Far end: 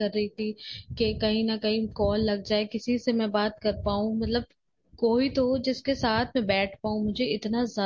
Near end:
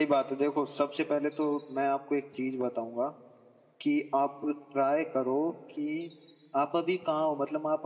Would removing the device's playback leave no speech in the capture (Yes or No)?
No